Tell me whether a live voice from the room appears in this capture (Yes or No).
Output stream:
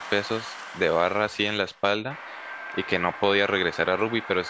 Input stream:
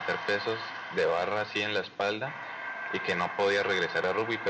No